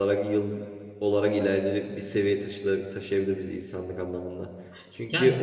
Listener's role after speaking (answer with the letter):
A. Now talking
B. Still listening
B